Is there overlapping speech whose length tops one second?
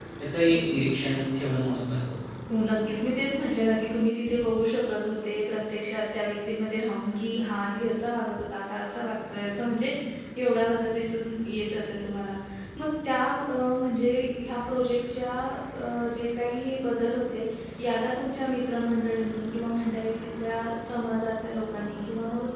No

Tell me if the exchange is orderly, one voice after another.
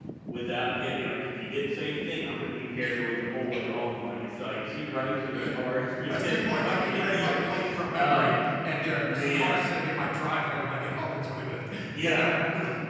No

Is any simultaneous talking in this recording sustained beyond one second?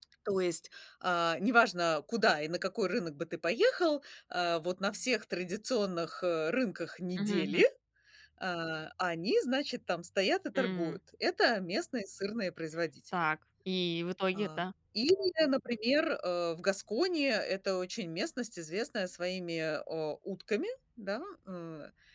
No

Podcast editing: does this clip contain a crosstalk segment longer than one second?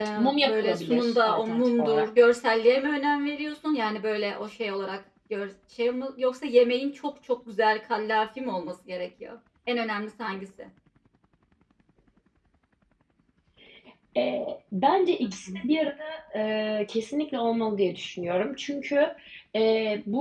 Yes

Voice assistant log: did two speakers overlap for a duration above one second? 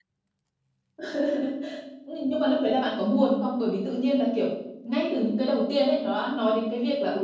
No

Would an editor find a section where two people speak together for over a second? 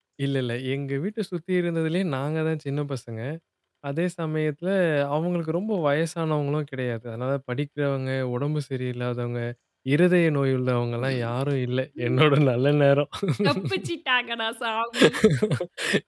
No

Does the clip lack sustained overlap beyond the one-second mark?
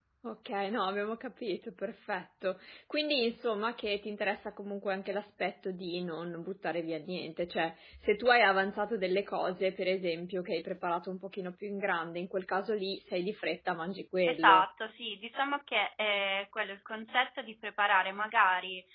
Yes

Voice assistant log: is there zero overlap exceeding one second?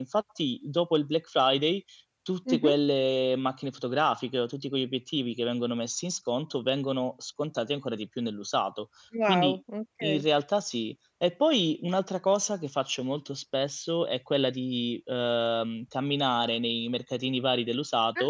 Yes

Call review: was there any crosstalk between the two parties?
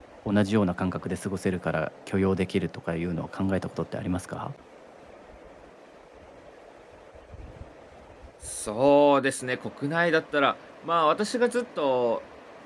No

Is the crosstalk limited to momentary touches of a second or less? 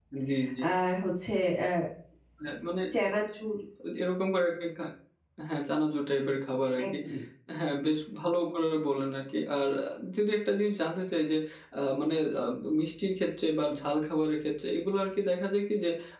Yes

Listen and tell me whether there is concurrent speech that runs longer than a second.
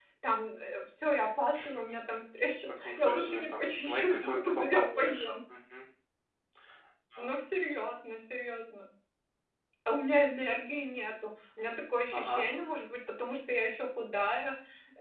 Yes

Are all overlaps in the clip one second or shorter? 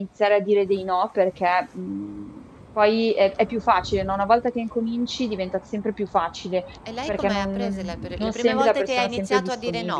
No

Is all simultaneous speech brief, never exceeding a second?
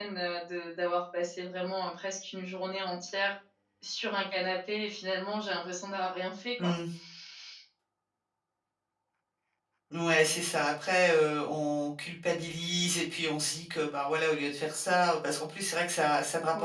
Yes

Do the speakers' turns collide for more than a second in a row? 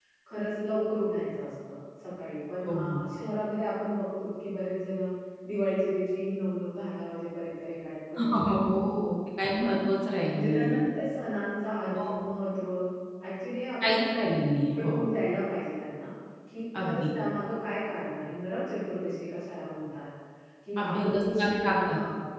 Yes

